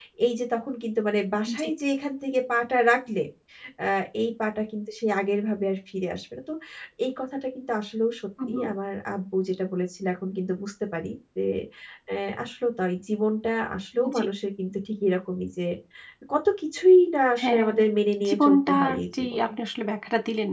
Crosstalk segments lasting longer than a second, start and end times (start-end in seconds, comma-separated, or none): 18.3-19.5